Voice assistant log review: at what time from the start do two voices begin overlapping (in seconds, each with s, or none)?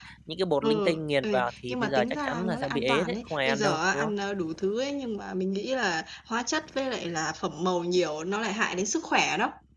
0.6 s